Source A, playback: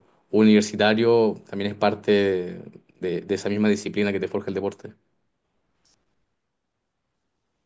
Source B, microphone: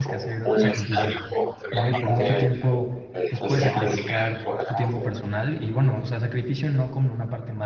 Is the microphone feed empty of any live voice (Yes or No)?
No